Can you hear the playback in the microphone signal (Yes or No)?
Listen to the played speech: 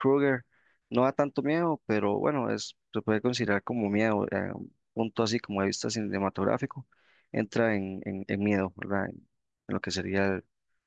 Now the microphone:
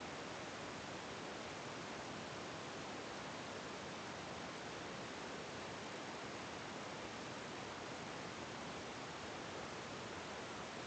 No